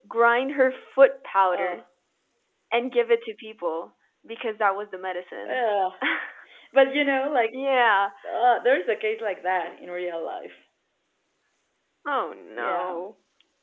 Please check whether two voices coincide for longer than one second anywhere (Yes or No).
No